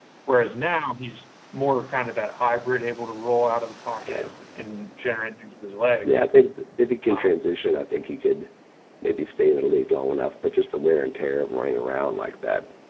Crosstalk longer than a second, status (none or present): none